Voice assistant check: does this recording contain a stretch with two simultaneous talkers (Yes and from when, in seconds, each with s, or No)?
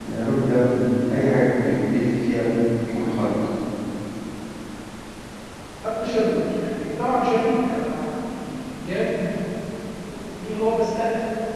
No